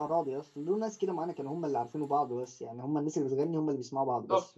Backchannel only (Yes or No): No